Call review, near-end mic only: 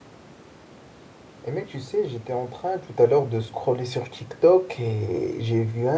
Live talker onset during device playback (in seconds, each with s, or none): 1.4 s